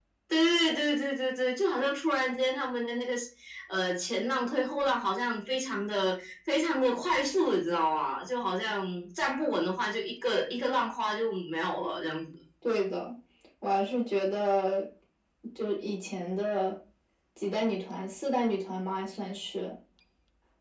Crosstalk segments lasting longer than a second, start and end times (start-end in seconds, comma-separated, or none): none